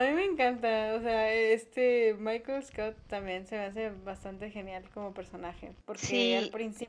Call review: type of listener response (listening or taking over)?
listening